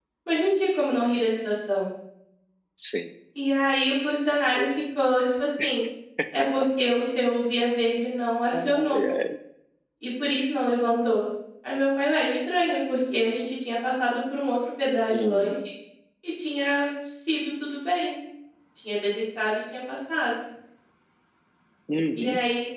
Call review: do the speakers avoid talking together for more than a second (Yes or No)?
Yes